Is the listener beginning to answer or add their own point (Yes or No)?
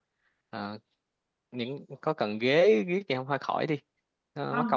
Yes